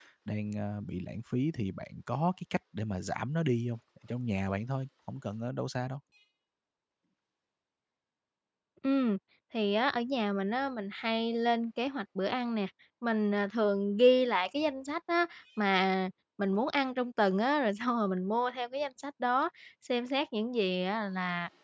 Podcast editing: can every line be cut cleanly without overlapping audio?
Yes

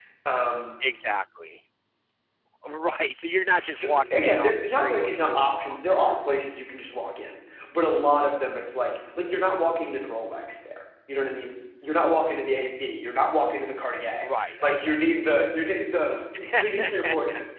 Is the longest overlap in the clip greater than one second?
Yes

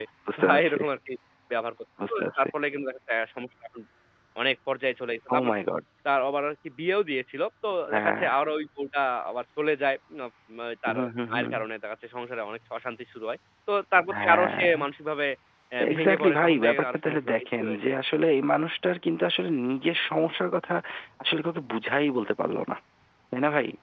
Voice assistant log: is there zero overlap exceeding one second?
No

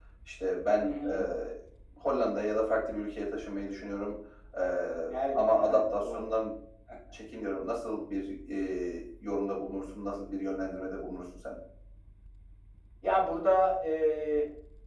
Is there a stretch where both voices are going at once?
Yes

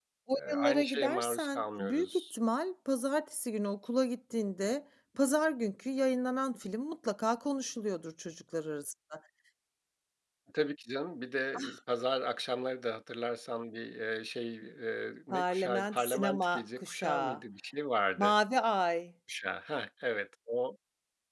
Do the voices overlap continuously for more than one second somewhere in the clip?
Yes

